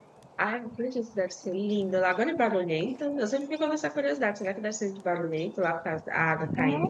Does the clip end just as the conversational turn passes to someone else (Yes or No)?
Yes